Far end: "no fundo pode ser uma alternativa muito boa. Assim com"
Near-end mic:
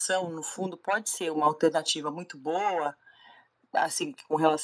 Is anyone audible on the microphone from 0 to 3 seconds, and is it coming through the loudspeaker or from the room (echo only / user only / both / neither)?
echo only